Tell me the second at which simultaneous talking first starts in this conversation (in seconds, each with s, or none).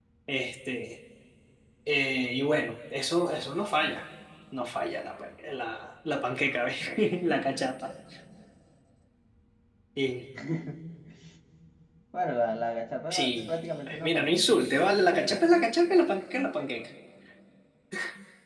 13.1 s